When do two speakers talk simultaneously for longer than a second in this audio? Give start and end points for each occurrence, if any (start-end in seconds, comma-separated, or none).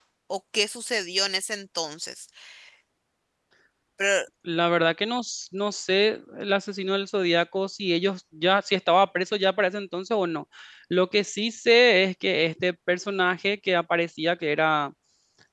none